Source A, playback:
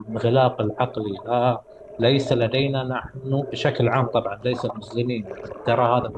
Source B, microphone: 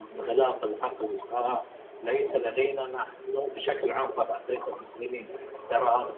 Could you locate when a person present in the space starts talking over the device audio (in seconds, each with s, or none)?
none